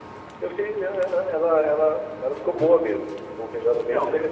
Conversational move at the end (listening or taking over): taking over